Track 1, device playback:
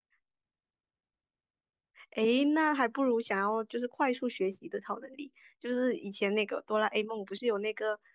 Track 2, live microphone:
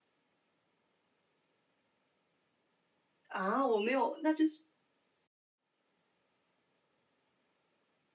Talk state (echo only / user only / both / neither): user only